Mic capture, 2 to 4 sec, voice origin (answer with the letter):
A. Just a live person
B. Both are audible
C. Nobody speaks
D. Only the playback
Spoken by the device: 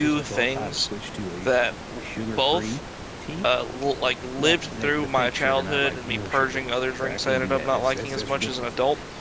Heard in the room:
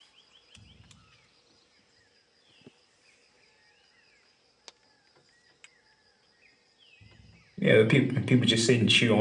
C